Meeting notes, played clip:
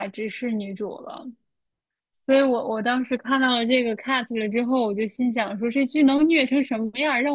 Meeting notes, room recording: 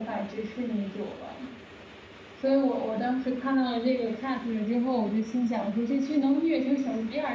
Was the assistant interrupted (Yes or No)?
No